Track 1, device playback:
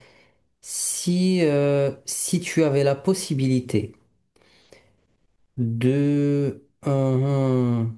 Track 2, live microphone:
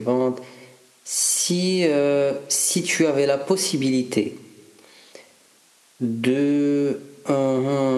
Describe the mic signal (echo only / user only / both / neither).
echo only